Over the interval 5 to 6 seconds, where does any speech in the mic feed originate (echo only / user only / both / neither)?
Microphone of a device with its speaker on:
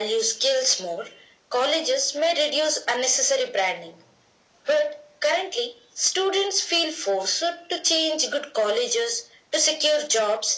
echo only